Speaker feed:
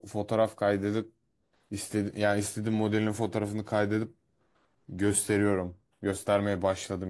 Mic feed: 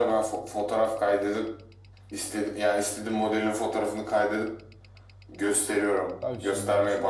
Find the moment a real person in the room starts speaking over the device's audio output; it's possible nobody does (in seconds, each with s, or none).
6.2 s